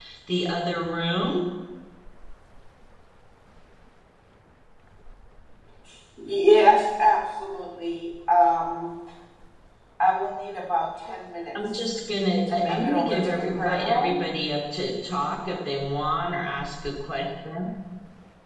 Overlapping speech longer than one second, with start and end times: 12.5-14.3

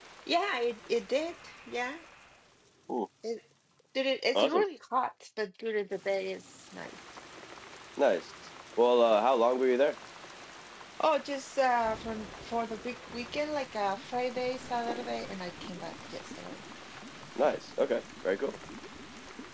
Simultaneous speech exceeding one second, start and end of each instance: none

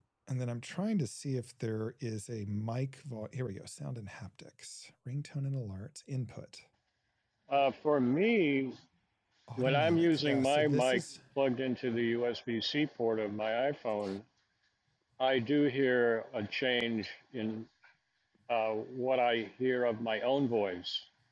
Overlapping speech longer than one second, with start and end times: 9.6-11.0

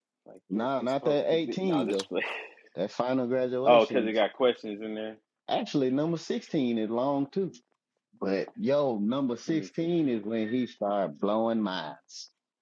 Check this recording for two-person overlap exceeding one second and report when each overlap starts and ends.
0.6-2.0

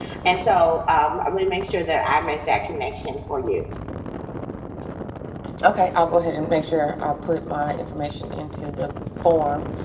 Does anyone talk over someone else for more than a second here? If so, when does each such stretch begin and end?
none

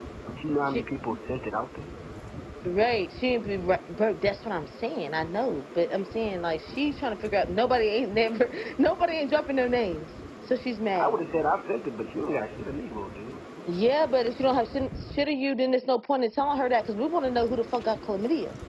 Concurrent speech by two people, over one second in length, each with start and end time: none

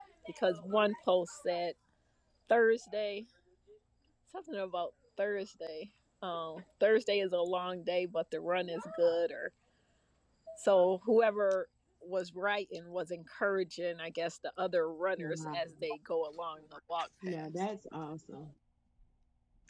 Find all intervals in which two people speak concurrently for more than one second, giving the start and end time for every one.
none

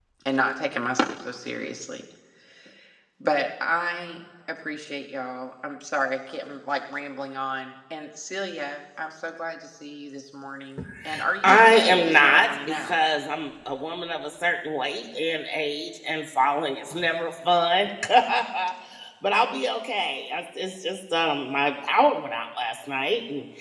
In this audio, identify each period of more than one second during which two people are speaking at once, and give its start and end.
11.4-13.0

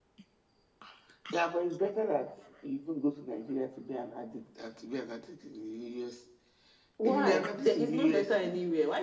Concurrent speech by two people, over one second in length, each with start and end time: 7.0-8.3

